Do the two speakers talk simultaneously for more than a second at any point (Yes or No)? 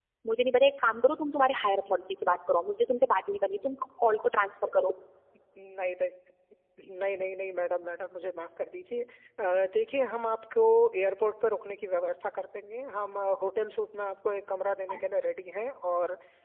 No